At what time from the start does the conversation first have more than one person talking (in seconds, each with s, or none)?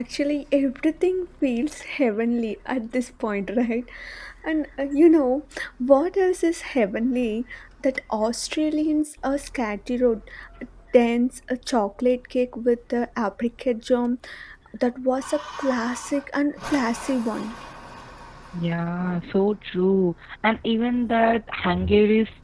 none